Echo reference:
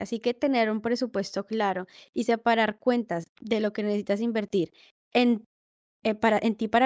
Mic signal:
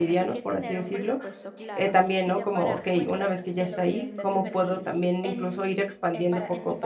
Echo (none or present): present